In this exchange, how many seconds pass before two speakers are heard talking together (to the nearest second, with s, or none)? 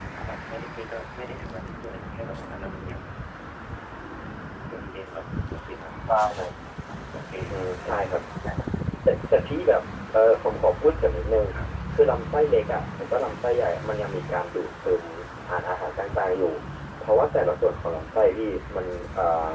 none